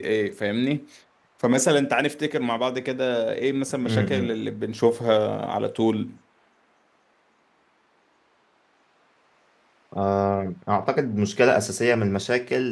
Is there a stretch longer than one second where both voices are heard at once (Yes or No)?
No